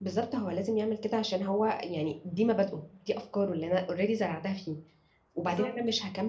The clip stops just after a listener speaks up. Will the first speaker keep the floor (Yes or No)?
Yes